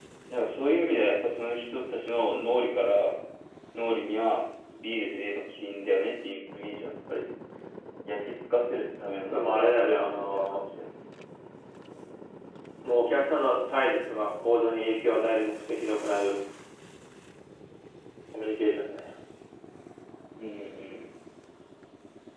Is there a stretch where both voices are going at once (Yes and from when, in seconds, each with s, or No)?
Yes, from 9.3 s